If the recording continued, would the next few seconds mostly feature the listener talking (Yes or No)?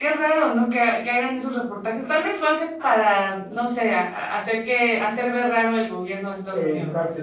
Yes